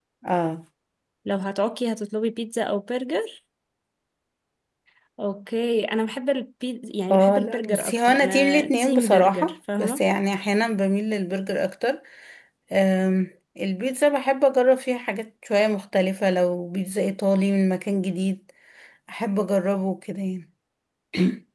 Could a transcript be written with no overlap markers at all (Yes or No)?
No